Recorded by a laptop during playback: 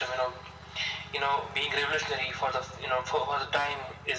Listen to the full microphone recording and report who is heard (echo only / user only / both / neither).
echo only